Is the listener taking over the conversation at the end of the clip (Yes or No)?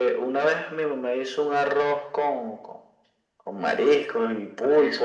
No